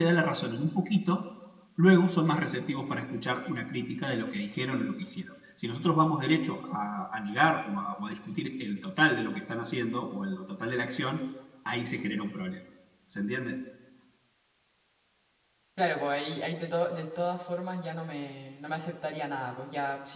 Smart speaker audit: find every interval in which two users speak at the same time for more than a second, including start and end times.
none

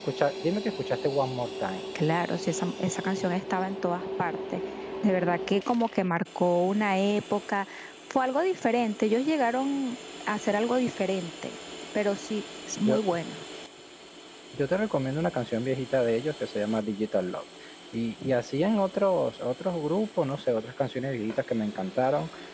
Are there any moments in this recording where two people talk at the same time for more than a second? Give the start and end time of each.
none

